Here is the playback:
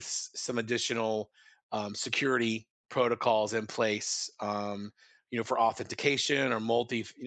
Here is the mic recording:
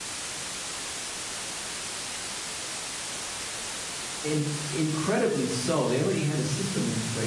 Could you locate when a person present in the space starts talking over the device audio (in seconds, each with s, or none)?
4.2 s